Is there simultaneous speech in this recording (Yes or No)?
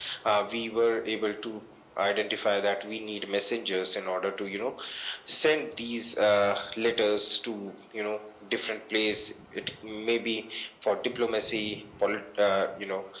No